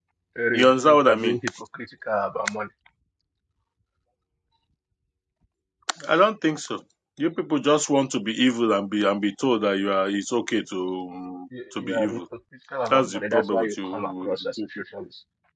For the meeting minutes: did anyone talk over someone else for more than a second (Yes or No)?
Yes